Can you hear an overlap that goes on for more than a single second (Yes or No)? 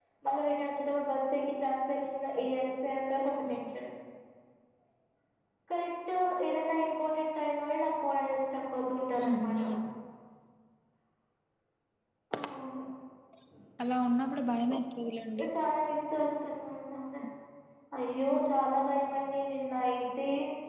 No